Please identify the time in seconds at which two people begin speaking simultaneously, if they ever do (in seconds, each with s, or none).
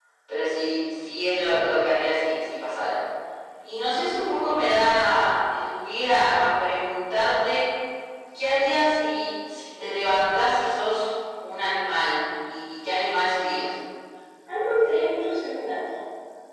none